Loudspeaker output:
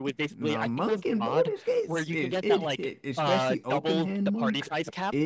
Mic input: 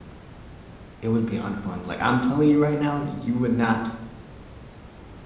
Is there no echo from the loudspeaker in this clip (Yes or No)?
Yes